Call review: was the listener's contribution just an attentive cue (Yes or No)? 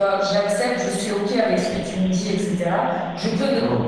Yes